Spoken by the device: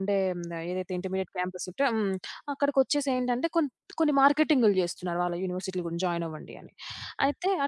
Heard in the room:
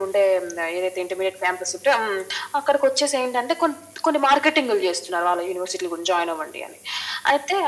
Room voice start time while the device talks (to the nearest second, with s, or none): none